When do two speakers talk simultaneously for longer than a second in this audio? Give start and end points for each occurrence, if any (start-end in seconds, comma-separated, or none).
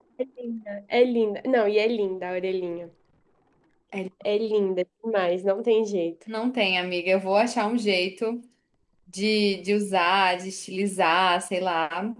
none